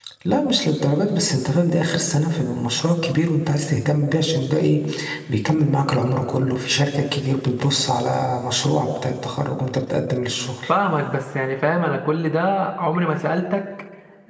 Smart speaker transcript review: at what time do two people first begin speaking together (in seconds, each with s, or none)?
none